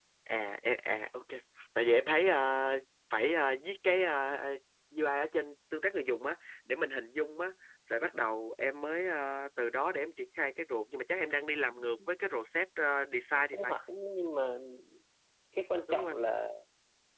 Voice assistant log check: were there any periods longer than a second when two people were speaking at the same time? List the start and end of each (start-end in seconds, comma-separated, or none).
none